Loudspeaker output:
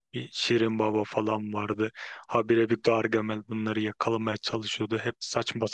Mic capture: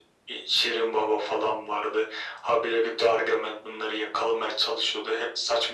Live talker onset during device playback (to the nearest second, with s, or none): none